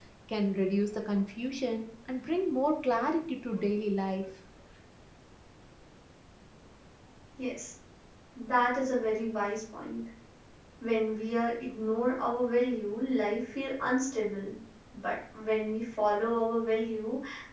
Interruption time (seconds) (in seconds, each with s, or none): none